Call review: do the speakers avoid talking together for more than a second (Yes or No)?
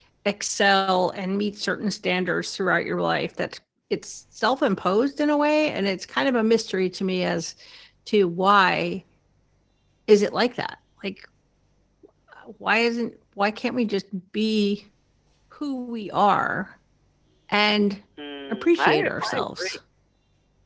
No